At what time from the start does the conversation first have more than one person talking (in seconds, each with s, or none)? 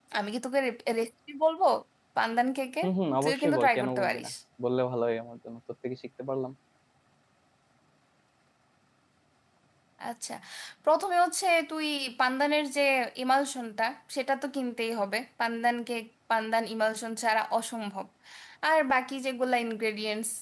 2.8 s